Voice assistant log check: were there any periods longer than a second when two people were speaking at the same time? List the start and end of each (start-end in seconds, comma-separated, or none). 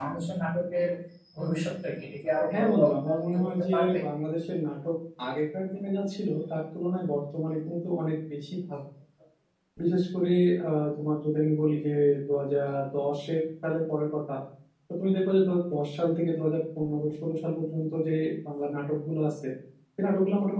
2.5-4.0